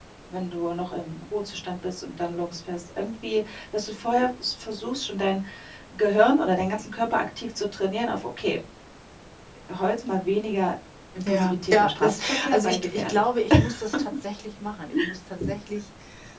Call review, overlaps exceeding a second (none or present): present